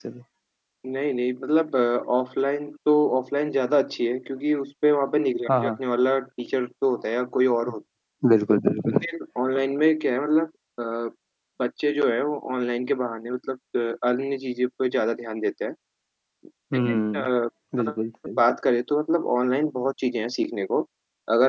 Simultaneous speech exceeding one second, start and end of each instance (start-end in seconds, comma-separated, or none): none